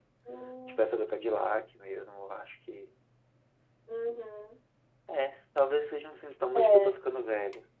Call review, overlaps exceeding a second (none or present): none